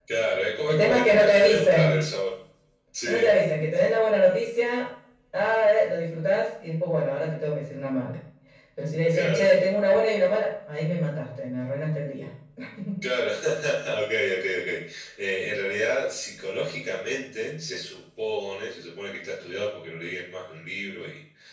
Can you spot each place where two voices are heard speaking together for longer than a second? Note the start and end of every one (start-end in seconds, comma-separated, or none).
0.7-1.9